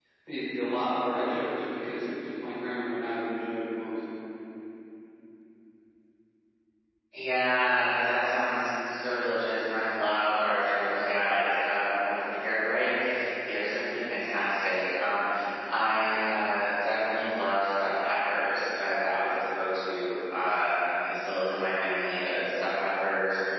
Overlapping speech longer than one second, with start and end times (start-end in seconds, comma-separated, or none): none